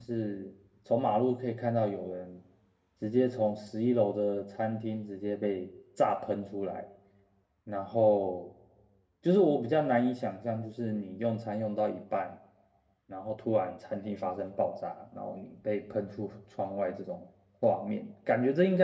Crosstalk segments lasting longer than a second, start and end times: none

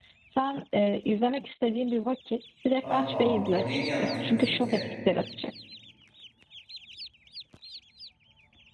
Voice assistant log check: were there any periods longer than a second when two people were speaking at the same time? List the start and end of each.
2.8-4.8

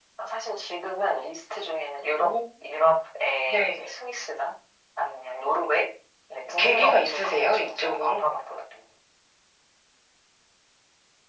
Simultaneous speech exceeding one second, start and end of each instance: 6.6-8.2

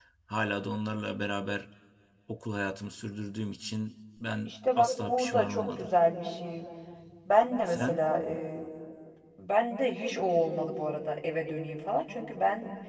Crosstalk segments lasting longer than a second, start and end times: 4.5-5.9

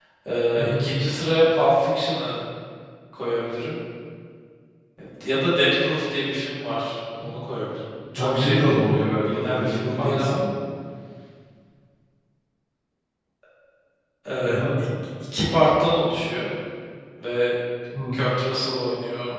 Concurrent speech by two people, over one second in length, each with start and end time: 8.2-10.3

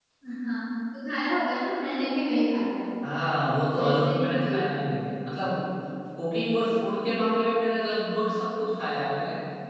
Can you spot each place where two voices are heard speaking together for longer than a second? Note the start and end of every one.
3.8-5.1

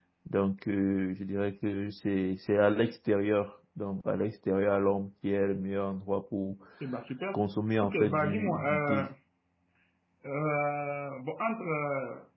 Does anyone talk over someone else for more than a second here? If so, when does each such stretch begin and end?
7.8-9.1

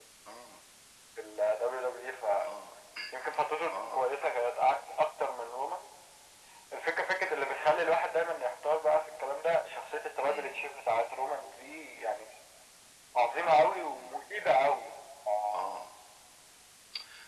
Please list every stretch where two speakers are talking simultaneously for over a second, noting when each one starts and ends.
none

